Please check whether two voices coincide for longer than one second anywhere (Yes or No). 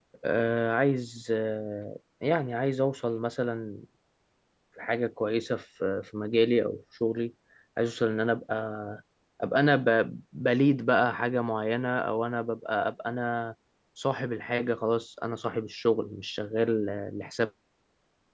No